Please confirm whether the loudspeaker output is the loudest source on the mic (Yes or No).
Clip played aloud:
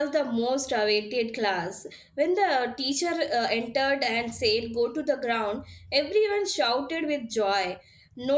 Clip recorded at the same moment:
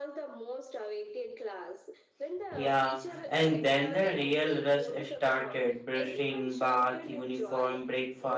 No